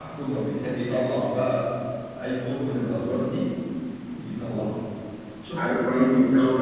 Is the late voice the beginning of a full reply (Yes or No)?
Yes